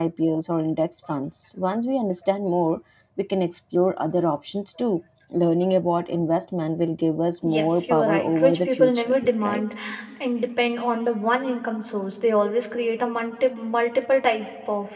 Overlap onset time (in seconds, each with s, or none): 7.4 s